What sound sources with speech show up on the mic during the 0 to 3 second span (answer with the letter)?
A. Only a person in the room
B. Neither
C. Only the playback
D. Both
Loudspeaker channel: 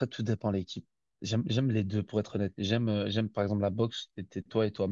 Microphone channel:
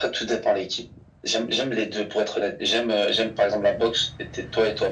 C